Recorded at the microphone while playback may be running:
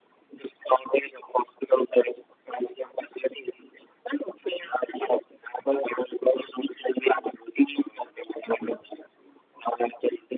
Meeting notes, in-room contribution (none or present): none